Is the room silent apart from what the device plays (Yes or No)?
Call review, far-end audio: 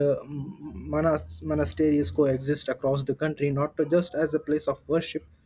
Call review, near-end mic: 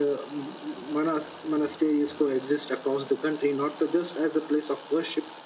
Yes